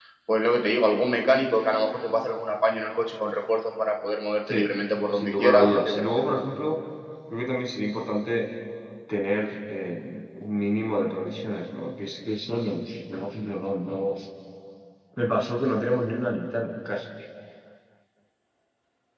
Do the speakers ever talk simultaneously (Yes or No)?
Yes